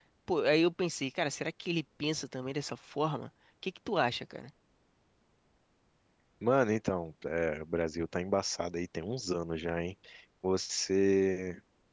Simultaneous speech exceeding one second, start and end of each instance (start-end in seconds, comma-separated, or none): none